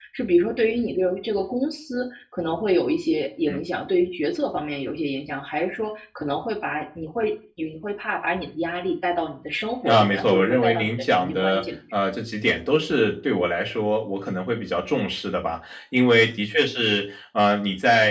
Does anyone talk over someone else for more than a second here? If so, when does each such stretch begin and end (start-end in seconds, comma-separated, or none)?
9.8-11.6